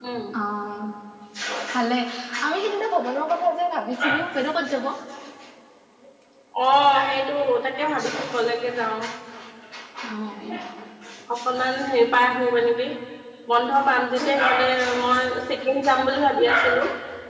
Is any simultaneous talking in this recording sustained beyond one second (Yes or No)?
No